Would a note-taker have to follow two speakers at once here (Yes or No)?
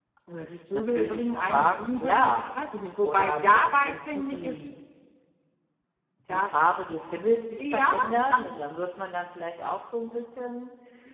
Yes